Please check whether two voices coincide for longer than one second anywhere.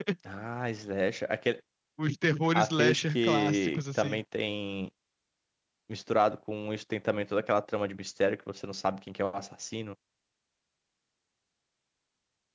Yes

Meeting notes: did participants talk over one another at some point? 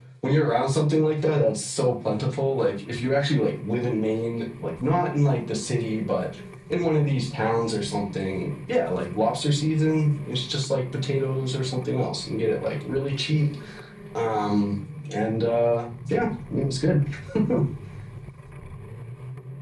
No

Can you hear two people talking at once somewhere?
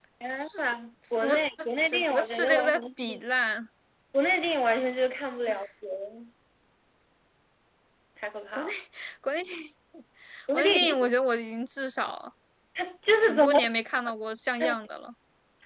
Yes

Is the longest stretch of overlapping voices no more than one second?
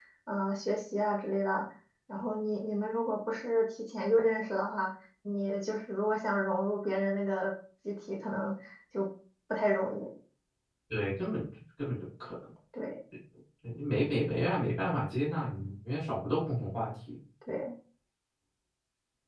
Yes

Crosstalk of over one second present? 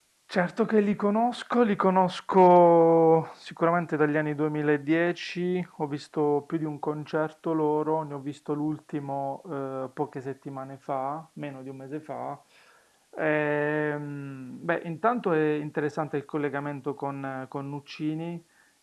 No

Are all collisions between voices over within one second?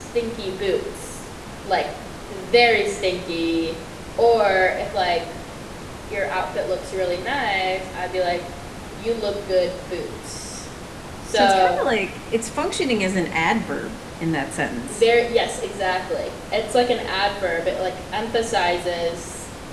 Yes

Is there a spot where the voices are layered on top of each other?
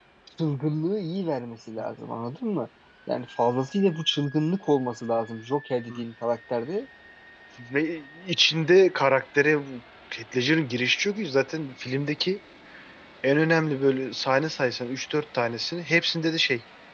No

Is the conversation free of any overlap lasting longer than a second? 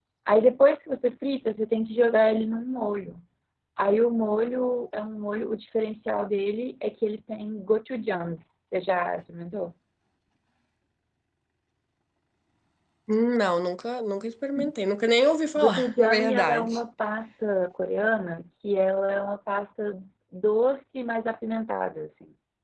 No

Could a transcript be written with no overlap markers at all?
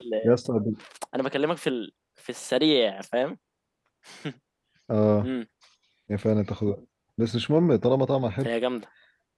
Yes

